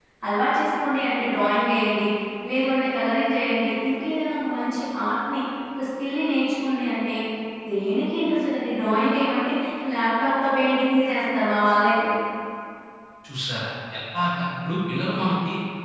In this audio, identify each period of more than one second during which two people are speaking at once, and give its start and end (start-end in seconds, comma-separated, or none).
none